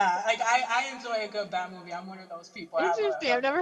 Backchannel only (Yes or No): No